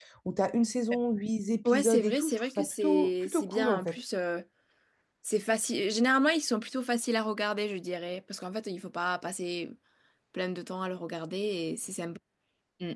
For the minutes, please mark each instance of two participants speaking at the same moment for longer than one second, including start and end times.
1.6-4.0

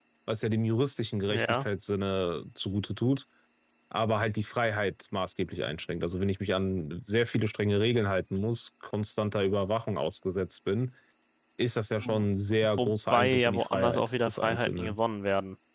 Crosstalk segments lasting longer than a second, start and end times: 12.8-15.0

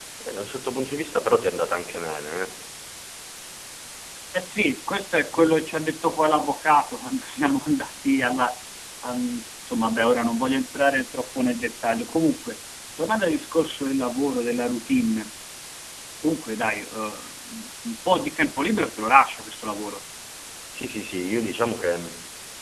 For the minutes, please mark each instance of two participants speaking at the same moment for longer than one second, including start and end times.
none

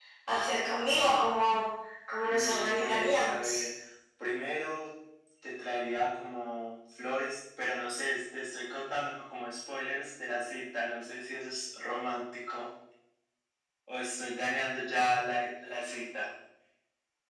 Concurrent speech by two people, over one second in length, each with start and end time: 2.2-3.6

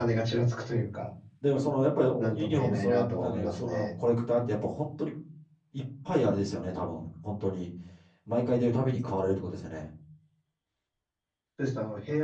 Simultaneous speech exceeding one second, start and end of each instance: 2.2-3.9

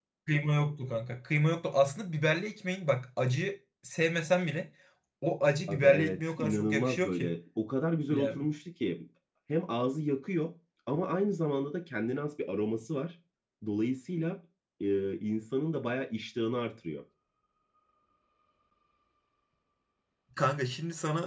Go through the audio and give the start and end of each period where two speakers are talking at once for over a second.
5.7-7.3

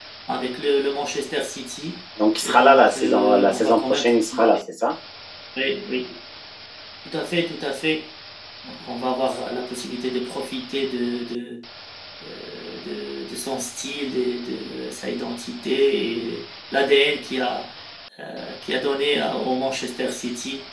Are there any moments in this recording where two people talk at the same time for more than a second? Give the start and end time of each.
2.4-4.1

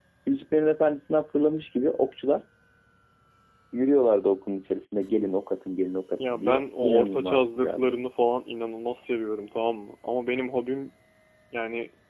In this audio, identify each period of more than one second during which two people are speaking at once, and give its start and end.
6.3-7.9

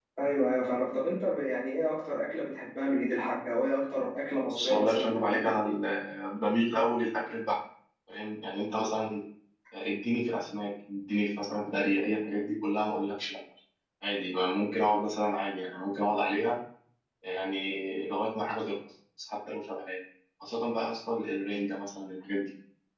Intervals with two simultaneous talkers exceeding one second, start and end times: 4.5-5.7

